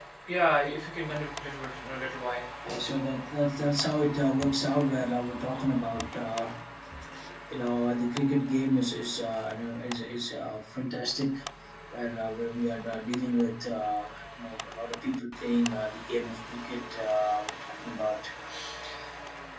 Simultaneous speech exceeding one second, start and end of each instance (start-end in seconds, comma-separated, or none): none